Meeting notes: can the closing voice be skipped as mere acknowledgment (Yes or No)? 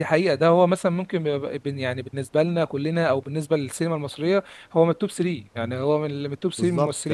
No